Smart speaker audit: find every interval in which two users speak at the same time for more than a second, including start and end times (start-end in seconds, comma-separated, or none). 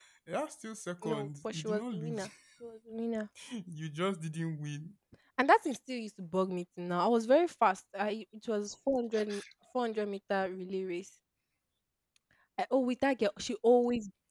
1.0-2.3